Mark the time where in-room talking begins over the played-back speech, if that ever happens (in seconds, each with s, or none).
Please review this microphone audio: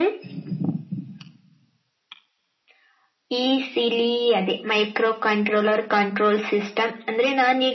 none